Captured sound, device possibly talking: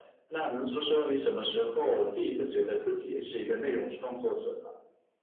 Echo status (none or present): present